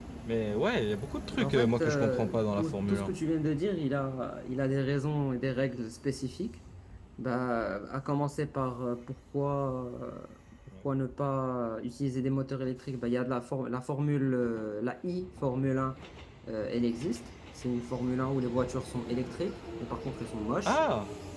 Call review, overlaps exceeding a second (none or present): present